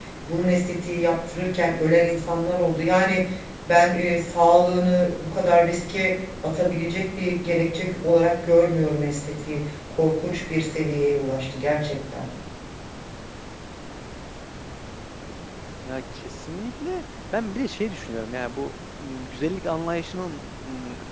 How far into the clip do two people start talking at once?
none

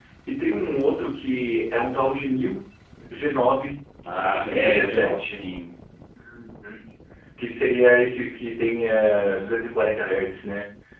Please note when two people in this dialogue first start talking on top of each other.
4.0 s

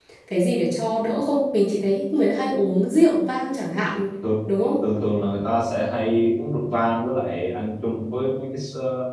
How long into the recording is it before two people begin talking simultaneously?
none

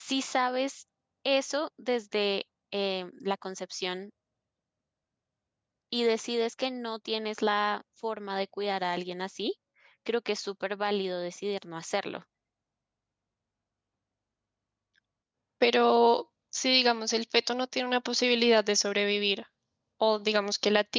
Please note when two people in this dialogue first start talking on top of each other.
none

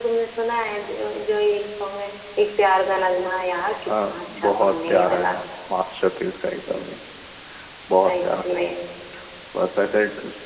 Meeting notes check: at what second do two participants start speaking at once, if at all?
3.9 s

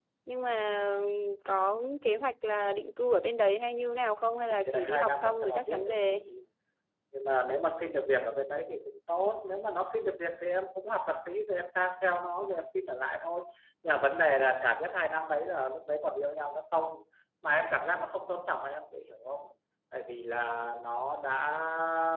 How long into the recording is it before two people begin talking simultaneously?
4.5 s

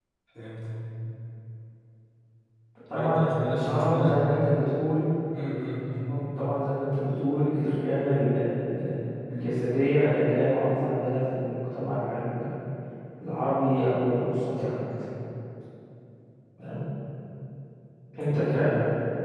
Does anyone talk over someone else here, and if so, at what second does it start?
2.9 s

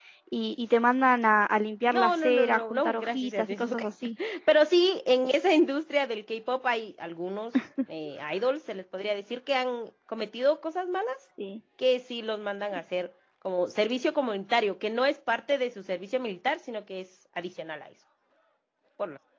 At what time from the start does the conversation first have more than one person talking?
1.9 s

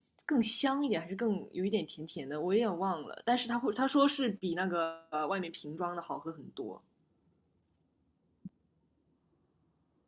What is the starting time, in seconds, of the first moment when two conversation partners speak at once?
none

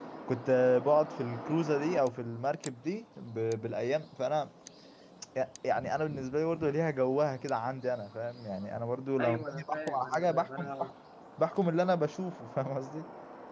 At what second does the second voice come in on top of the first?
9.2 s

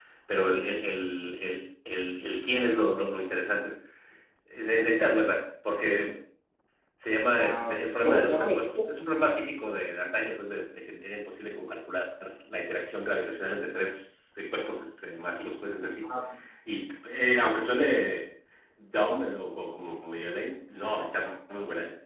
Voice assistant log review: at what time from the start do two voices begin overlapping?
7.4 s

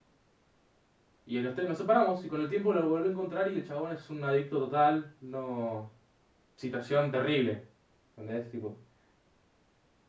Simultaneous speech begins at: none

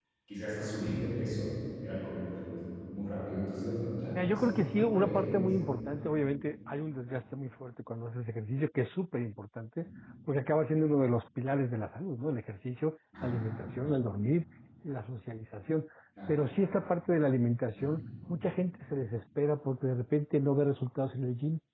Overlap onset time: 4.2 s

